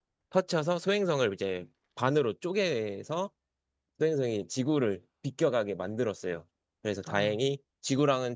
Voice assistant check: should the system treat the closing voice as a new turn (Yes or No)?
No